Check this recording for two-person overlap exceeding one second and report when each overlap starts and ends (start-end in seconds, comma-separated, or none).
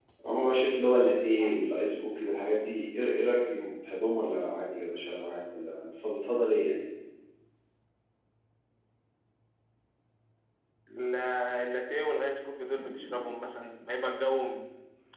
none